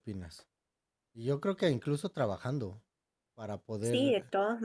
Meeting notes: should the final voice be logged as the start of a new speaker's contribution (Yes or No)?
Yes